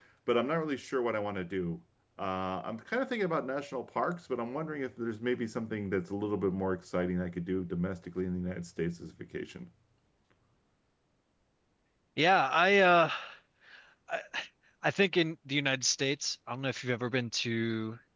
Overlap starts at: none

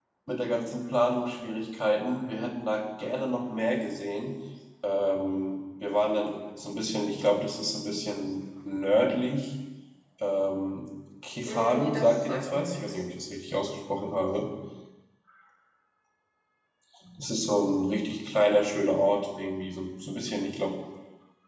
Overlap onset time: 11 s

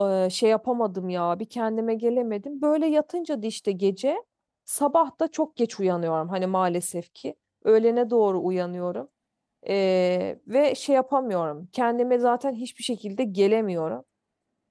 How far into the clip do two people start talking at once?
none

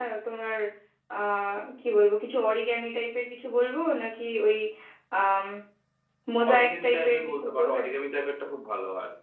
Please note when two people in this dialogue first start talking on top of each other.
7 s

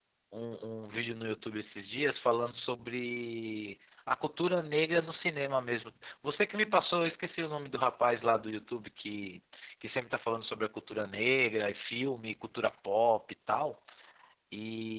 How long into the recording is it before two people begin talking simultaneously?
none

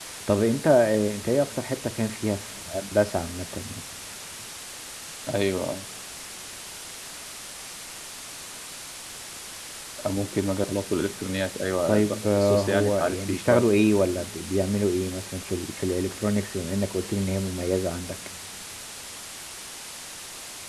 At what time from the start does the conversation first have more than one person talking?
12 s

